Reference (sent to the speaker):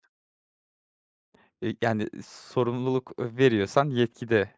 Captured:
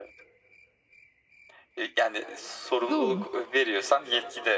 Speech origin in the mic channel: both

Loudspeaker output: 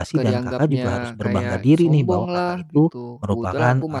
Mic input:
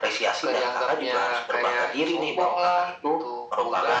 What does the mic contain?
echo only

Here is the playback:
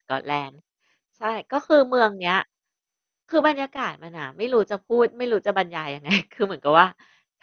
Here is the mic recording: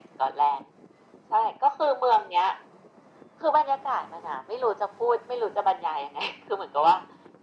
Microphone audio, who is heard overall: echo only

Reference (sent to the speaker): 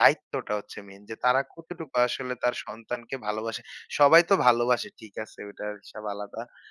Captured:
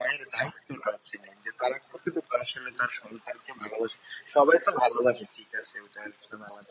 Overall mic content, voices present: echo only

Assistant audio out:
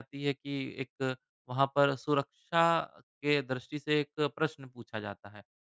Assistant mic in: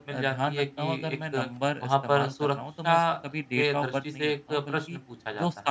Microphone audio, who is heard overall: both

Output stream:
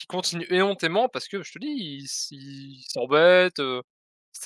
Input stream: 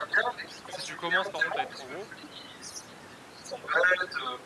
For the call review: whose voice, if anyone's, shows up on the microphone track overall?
both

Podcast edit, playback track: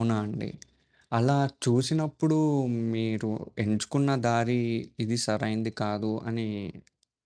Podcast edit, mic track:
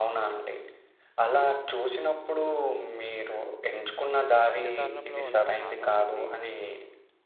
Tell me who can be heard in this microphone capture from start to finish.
both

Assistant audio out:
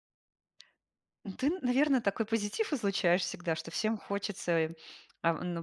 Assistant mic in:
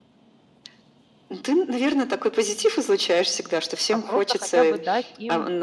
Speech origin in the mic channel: both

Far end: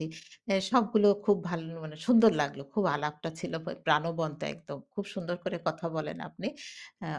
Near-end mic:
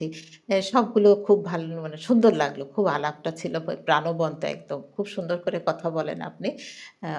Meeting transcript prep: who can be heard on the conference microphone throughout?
echo only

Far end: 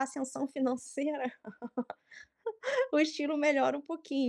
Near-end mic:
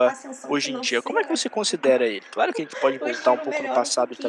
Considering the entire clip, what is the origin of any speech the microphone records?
both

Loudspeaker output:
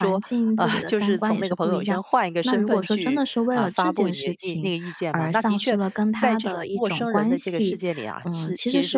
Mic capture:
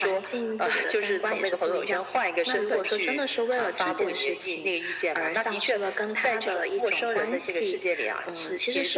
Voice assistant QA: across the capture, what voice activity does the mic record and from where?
echo only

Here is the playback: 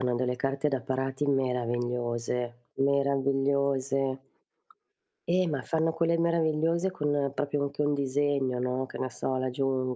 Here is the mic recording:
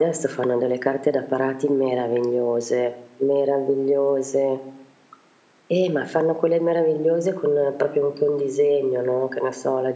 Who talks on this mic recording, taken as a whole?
echo only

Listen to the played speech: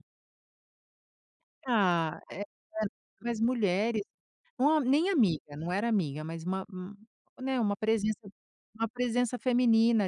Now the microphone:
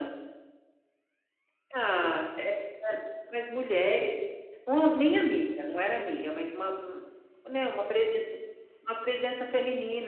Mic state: echo only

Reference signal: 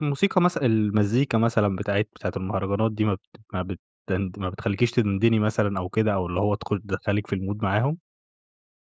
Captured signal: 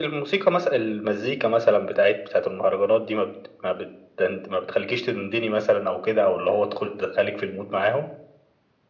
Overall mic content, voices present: echo only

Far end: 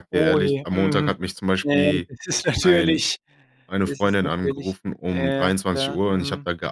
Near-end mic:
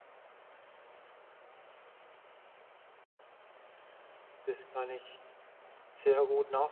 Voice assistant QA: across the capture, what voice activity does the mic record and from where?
user only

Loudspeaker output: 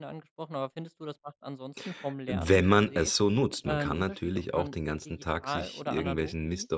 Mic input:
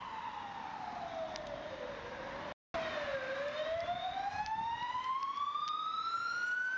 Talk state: neither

